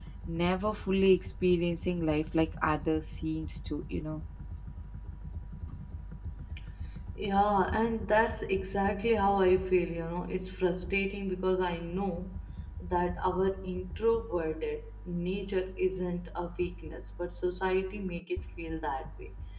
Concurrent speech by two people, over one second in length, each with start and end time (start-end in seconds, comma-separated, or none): none